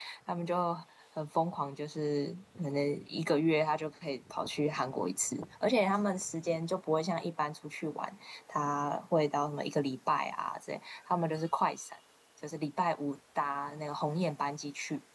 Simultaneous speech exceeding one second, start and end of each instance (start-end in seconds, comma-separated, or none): none